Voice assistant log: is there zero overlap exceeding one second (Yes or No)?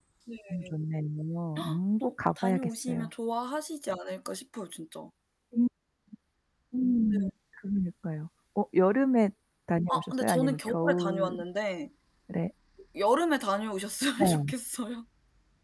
No